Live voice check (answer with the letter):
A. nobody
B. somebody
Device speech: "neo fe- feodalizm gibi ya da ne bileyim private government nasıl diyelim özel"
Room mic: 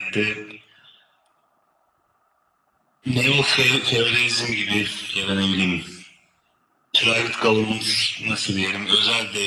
A